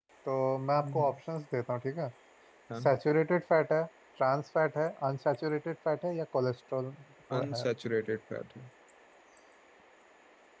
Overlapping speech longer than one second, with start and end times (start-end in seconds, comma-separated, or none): none